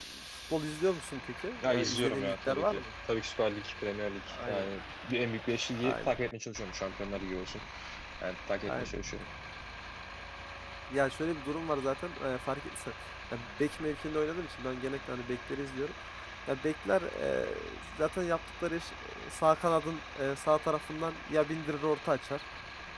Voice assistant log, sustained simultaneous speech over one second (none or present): present